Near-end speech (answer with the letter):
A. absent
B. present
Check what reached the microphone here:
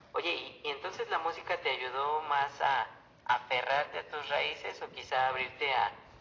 A